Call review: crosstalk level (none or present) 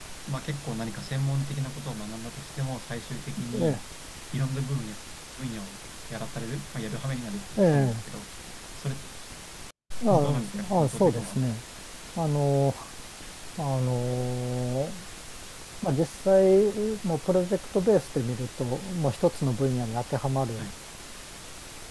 present